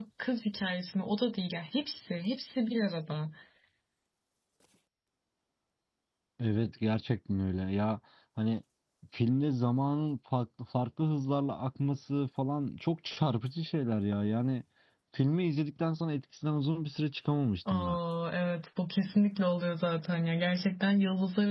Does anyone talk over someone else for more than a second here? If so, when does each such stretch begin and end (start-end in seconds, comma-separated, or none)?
none